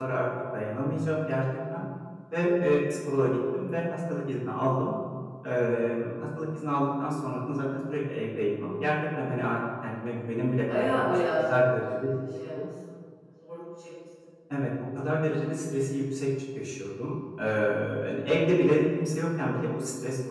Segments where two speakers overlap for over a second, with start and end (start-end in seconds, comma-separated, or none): 10.8-12.0